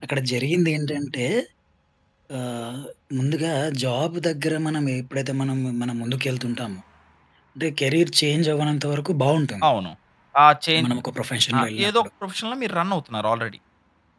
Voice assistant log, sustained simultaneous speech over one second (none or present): none